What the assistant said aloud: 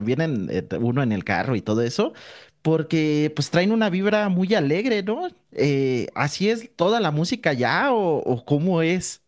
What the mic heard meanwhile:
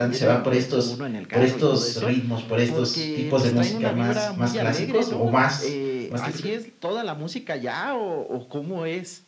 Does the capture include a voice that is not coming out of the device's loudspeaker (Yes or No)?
Yes